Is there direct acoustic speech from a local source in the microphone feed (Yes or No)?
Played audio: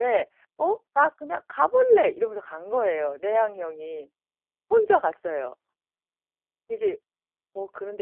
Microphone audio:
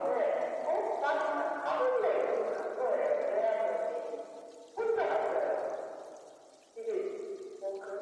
No